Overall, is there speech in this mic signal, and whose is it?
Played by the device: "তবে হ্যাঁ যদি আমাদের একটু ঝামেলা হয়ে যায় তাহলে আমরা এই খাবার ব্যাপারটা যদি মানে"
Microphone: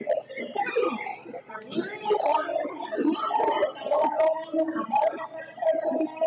echo only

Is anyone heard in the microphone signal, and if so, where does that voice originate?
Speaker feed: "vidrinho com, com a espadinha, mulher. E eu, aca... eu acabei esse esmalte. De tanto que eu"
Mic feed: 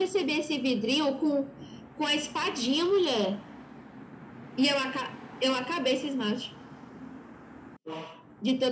echo only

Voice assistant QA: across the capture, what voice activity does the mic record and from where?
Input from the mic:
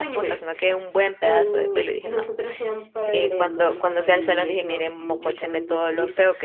both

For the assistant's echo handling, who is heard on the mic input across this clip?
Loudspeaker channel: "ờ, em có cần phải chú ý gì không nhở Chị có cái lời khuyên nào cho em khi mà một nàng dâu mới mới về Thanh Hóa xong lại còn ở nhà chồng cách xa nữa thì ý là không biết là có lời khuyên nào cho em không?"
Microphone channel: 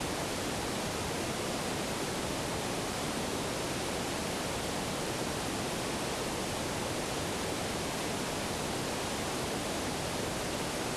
neither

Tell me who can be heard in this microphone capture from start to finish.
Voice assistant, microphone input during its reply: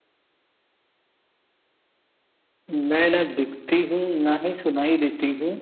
echo only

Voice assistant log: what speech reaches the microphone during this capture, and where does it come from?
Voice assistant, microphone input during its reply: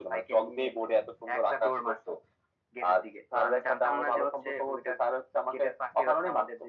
echo only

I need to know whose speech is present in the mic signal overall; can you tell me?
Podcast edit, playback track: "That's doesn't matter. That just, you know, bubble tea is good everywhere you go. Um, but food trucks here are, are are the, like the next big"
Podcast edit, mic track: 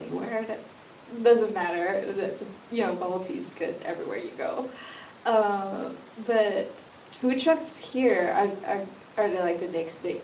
echo only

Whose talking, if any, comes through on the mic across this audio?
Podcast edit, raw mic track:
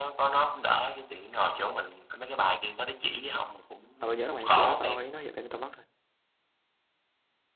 both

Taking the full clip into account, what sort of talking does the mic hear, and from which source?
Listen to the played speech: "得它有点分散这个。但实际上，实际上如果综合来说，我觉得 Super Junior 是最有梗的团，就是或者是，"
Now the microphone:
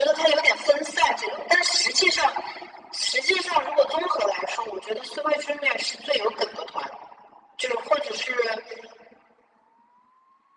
echo only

